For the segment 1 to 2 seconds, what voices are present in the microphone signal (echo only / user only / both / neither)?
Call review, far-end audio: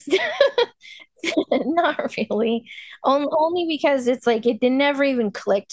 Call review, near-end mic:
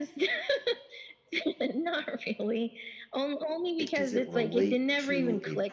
echo only